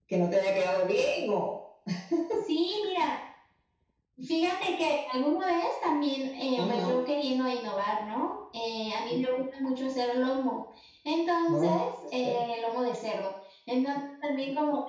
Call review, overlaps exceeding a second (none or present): none